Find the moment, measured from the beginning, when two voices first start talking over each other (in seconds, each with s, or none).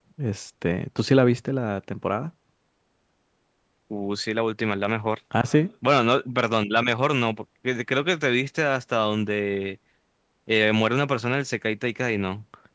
none